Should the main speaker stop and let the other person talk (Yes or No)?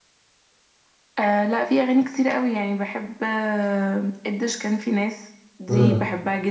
No